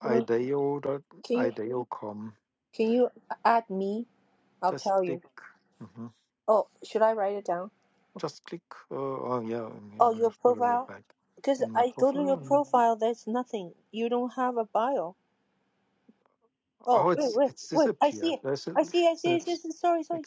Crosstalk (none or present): present